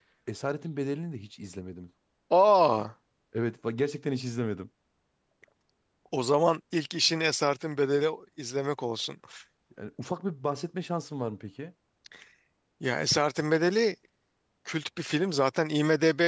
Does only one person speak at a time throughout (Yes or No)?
Yes